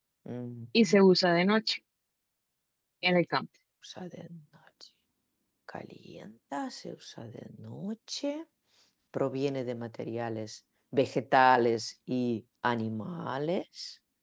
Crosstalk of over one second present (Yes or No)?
No